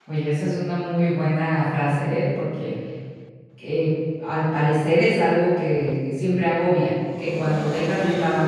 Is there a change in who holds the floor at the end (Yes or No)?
No